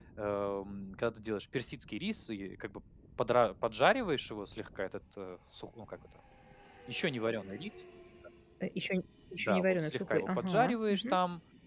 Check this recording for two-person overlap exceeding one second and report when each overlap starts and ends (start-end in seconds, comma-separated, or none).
9.4-11.2